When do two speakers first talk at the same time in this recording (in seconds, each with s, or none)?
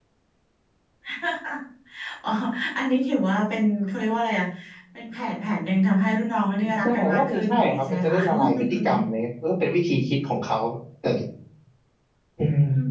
6.8 s